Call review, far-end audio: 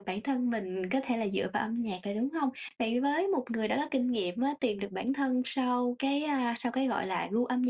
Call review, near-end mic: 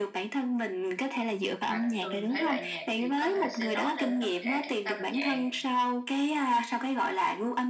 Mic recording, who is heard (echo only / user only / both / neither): both